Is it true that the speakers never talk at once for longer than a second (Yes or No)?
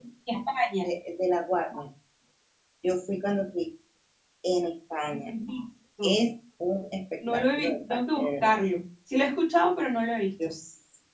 No